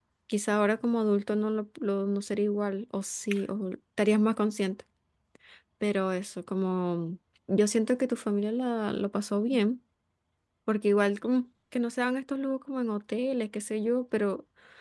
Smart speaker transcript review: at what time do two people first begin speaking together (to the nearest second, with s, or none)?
none